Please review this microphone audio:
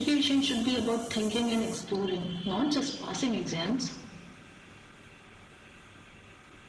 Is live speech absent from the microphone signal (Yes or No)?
Yes